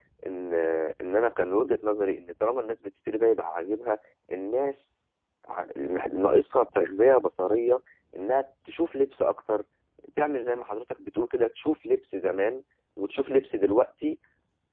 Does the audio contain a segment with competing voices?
No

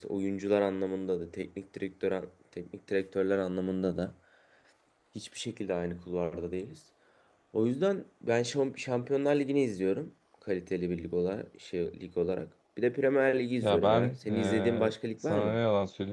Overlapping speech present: Yes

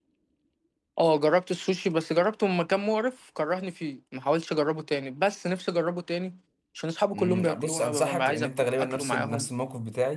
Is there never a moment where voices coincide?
No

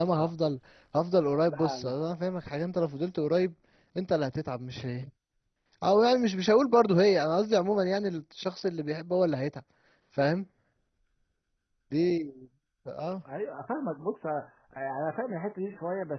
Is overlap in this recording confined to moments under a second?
Yes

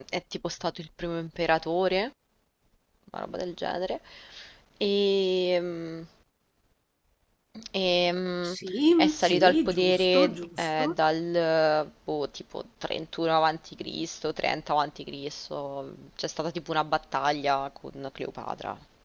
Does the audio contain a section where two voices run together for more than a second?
Yes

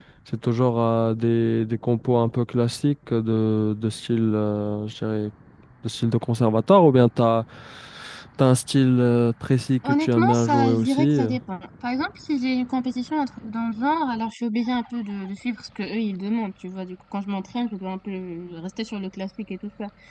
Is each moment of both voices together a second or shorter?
No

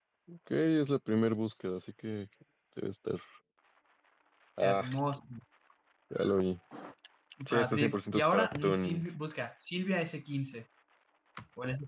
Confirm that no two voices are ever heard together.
No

